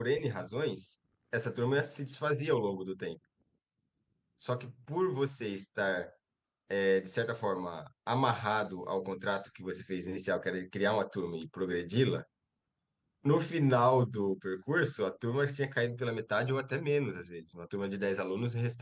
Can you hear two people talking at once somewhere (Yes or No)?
No